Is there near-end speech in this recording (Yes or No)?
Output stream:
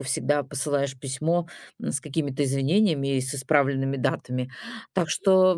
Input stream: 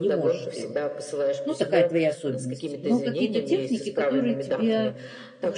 Yes